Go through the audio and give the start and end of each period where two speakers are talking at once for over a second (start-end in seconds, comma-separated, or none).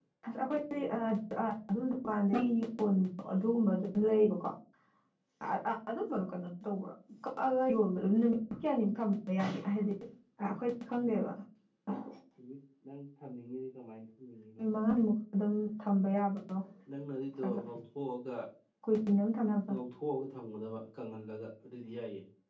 none